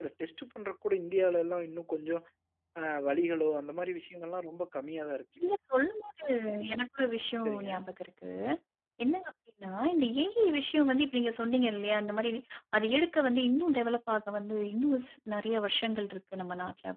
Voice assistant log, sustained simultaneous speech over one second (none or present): none